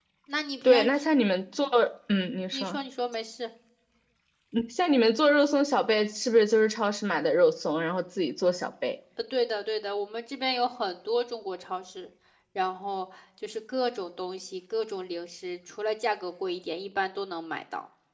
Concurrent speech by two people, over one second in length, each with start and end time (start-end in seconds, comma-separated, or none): none